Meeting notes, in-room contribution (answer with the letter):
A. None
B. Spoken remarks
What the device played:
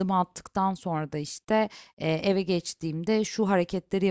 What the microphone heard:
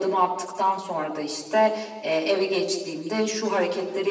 A